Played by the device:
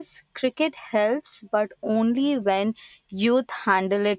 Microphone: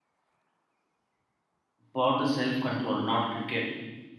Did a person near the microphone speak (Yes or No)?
Yes